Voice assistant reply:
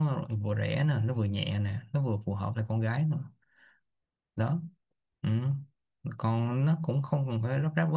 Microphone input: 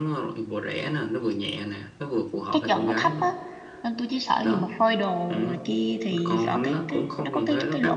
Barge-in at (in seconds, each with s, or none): 2.5 s